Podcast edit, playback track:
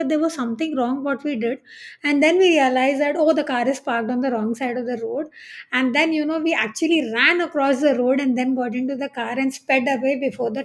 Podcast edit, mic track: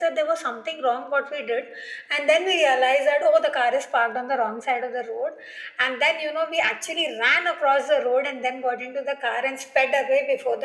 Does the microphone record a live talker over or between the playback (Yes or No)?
No